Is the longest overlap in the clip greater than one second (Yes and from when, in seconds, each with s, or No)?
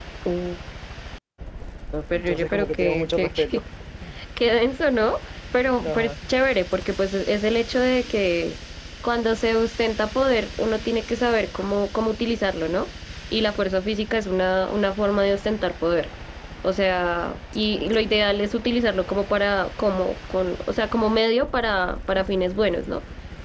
Yes, from 2.3 s